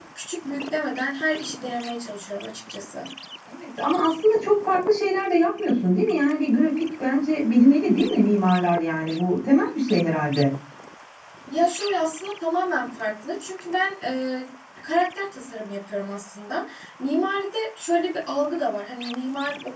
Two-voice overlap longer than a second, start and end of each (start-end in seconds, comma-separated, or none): none